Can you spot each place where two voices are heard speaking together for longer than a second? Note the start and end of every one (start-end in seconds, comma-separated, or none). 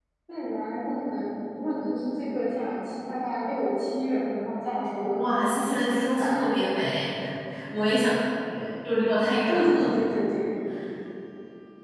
5.1-6.5